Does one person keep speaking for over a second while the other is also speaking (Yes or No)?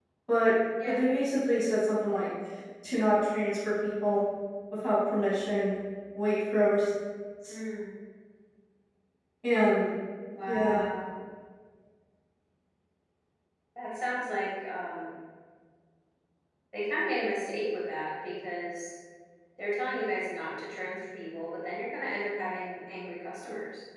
No